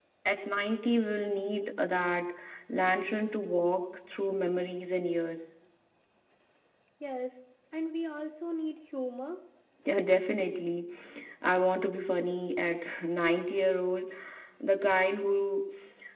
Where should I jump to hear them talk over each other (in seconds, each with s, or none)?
none